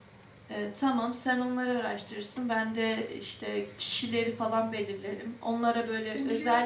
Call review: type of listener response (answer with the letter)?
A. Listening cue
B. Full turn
A